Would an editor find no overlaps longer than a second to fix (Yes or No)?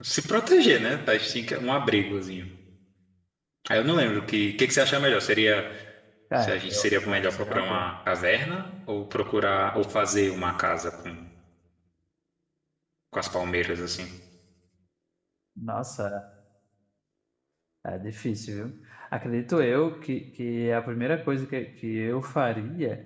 No